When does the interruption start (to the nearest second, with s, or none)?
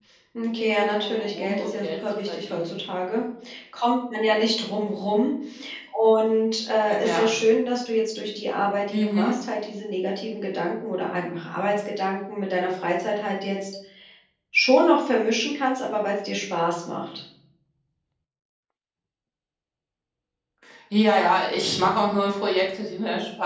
1 s